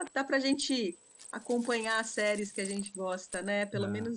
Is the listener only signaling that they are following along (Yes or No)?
No